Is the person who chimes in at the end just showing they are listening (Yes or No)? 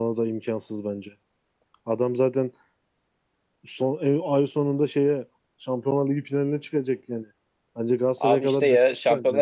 No